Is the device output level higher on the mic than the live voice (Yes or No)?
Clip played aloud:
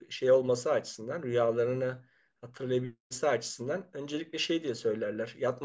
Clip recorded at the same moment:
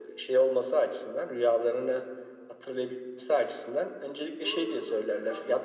Yes